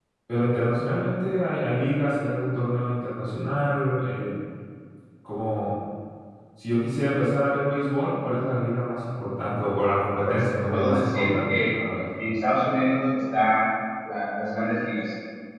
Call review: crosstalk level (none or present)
present